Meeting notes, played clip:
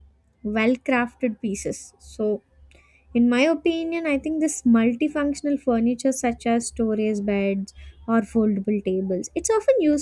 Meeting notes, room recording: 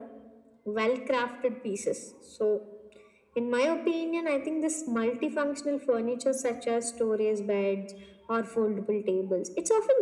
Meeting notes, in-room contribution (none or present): none